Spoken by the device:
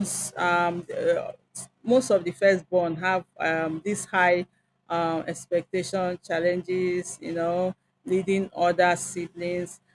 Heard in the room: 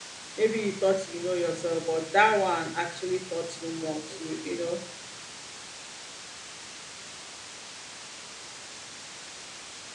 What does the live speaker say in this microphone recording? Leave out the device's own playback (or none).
Maybe you thought you know yourself, but that one actually taught you more to, you know,